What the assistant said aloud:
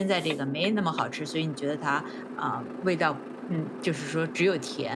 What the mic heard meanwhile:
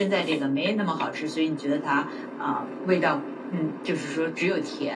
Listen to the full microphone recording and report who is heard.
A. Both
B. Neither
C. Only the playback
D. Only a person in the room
C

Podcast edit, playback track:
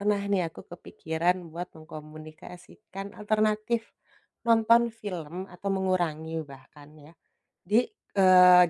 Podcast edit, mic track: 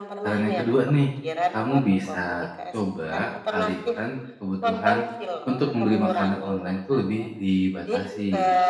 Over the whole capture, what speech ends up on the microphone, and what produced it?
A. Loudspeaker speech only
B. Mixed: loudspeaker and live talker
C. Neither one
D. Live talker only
B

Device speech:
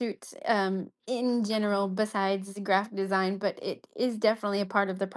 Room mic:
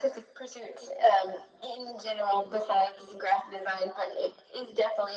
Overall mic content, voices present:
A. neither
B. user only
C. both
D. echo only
D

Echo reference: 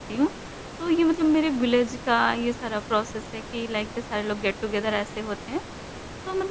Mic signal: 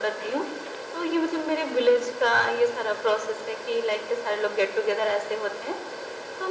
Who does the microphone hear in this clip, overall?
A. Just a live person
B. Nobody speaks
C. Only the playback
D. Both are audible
C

